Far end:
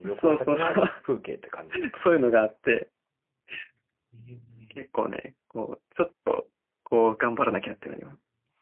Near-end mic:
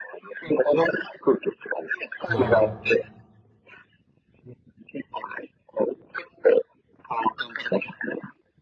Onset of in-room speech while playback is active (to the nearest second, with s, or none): 2 s